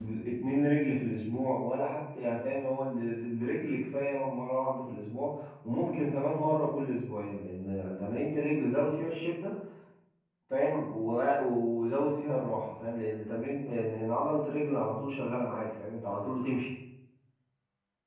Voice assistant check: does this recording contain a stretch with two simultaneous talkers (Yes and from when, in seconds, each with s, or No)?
No